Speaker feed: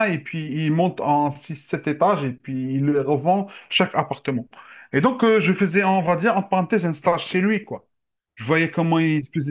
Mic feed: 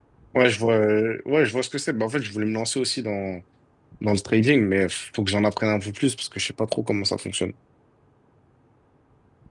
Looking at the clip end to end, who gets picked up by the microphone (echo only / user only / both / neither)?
user only